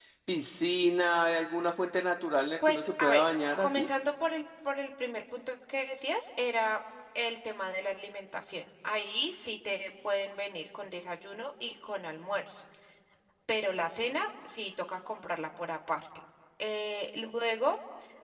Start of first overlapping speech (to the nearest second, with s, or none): 3 s